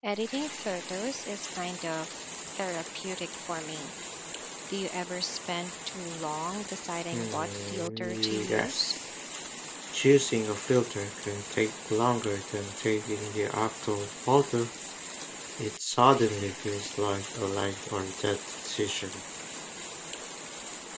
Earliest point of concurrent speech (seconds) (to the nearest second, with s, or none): 7 s